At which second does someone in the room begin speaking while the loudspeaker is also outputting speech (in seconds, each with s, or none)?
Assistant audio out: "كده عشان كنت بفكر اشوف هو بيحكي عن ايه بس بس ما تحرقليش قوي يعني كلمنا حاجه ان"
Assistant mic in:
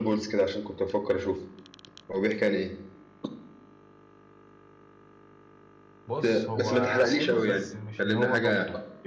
6.1 s